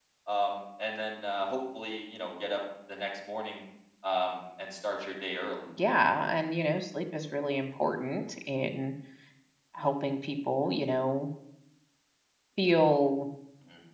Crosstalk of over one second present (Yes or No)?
No